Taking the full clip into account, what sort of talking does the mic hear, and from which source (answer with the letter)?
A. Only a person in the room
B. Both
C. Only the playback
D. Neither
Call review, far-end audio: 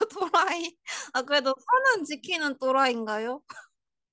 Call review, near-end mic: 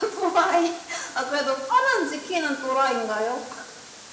C